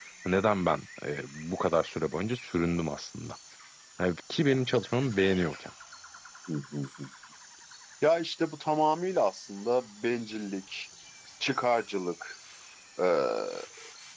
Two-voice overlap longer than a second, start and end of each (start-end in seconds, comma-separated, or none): none